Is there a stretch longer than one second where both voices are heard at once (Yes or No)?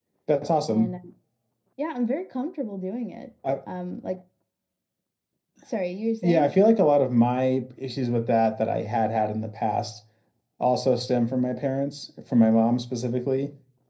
No